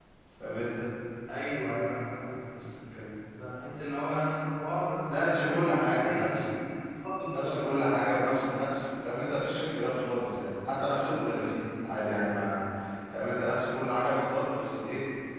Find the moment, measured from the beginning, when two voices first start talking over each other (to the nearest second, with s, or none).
5 s